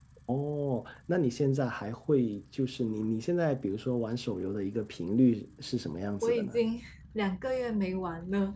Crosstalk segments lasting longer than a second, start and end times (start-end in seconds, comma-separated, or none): none